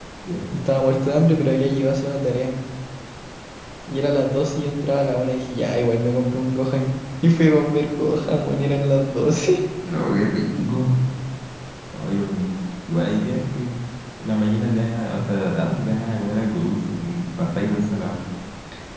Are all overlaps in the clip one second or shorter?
Yes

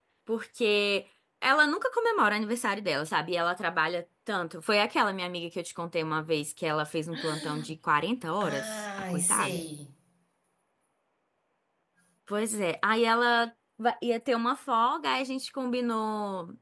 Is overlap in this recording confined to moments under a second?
No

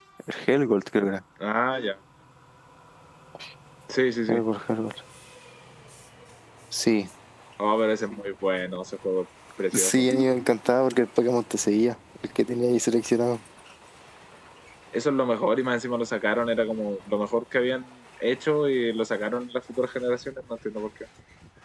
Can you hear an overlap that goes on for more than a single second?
No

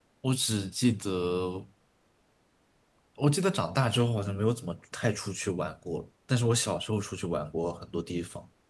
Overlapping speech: No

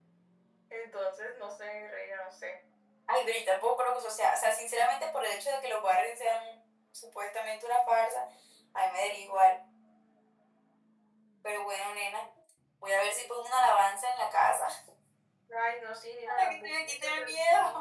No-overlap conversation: No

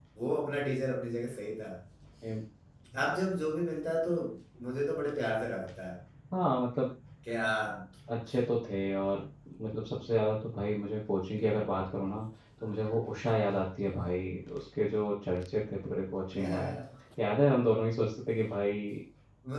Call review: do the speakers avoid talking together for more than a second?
Yes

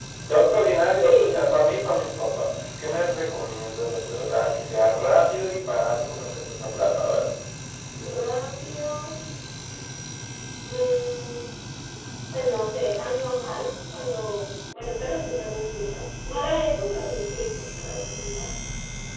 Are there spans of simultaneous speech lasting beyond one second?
No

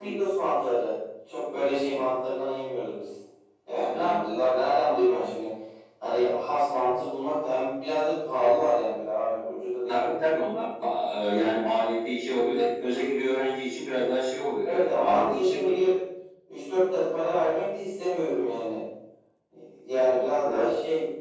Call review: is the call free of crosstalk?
No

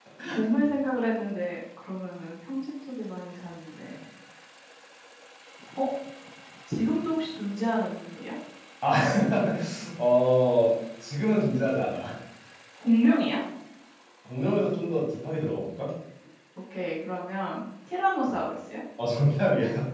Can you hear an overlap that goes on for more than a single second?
No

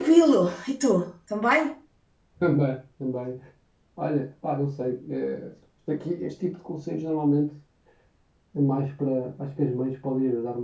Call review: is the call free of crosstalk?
Yes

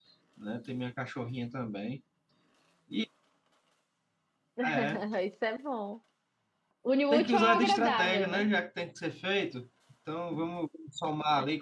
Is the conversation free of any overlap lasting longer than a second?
No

